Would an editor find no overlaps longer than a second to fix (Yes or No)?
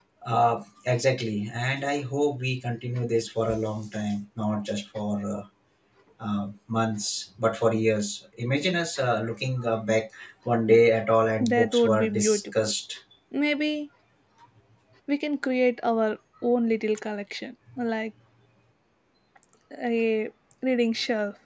No